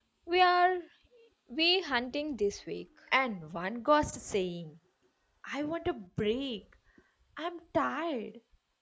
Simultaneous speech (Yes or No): No